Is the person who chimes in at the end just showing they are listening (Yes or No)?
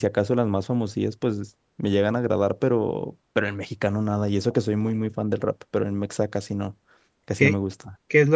No